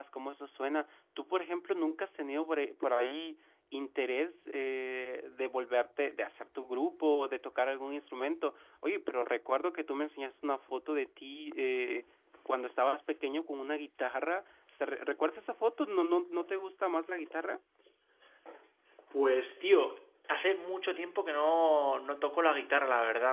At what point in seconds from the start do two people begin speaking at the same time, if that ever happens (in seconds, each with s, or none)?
none